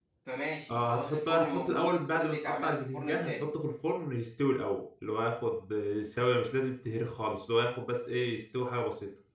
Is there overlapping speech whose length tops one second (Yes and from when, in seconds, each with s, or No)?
Yes, from 0.7 s